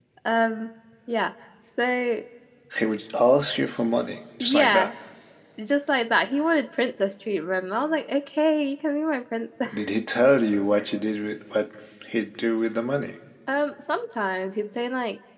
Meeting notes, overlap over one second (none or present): none